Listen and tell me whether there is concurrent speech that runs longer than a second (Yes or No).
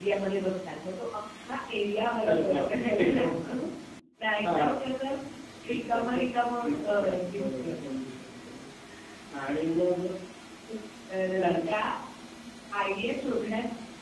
Yes